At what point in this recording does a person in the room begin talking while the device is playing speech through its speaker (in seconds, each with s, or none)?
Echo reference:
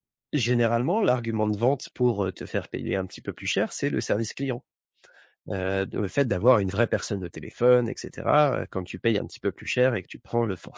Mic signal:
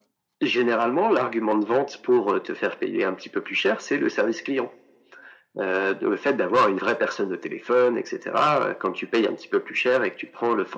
none